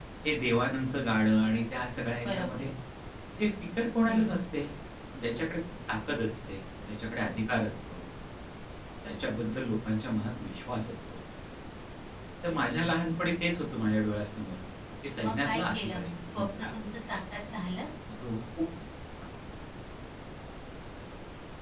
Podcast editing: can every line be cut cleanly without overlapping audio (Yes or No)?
No